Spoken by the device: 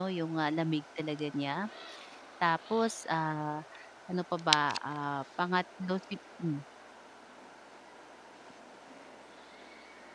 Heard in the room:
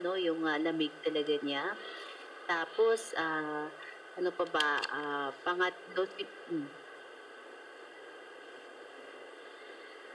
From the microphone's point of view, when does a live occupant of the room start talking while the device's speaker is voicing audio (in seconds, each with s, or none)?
none